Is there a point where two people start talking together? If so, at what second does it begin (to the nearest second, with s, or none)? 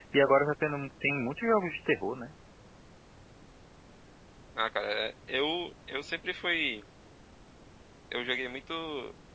none